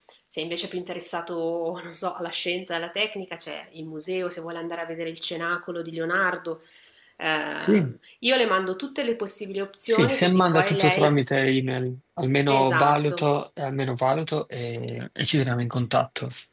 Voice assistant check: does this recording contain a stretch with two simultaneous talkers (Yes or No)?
Yes